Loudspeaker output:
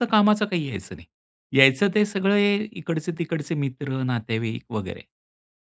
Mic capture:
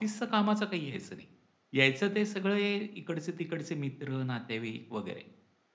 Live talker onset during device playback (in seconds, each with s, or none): none